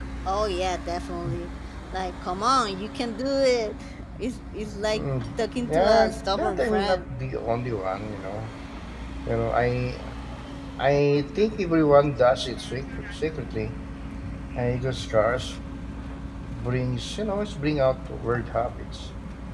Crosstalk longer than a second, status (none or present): present